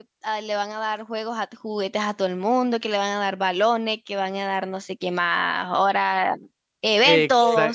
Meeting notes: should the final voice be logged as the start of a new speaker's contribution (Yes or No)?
Yes